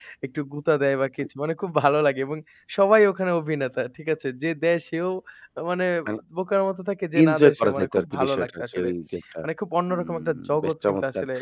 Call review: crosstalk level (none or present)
present